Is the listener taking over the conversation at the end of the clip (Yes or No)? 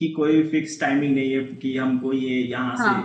No